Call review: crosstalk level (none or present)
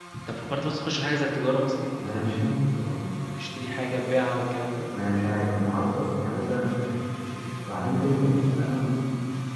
none